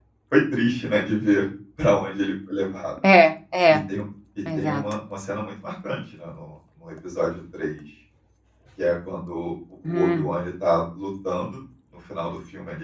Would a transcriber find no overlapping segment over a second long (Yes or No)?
Yes